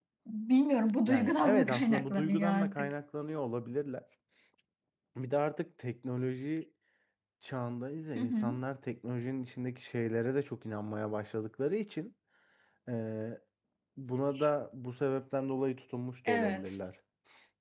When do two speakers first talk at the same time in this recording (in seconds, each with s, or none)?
1.1 s